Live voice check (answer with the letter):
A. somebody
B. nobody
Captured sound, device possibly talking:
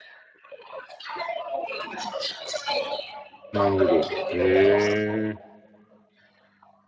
A